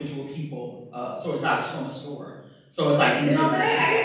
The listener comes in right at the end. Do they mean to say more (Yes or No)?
Yes